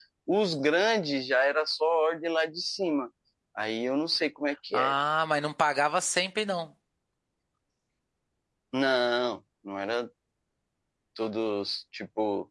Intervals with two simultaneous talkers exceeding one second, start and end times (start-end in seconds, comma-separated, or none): none